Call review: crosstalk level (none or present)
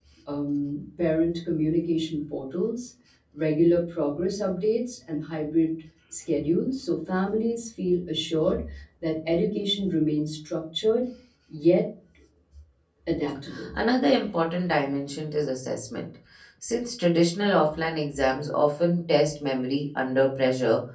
none